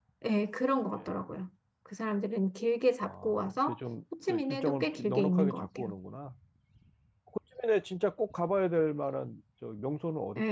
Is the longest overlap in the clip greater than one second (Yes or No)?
Yes